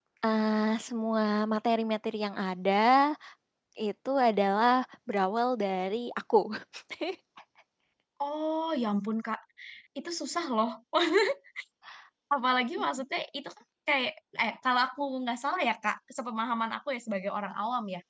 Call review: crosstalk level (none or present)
none